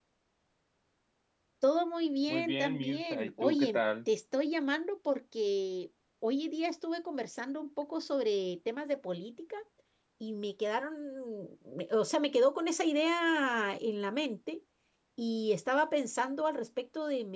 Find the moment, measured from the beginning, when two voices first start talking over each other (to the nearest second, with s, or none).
2 s